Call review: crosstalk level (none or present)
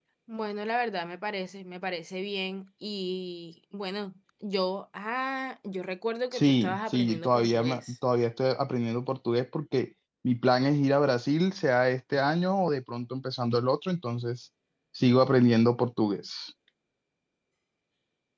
present